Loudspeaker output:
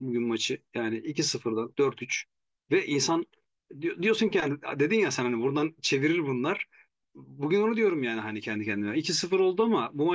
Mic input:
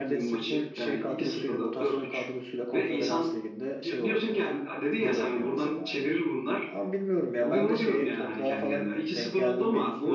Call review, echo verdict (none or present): present